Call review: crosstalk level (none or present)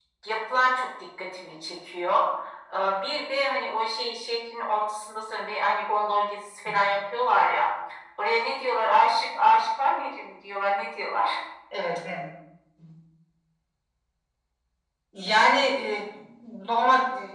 none